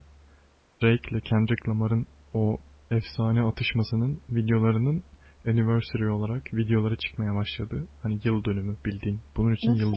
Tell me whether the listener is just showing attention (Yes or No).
No